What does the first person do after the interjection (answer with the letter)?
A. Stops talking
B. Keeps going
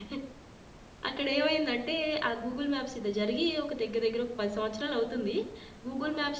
B